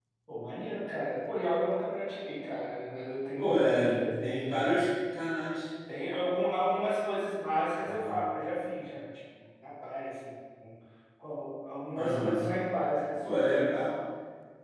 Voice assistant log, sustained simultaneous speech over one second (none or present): present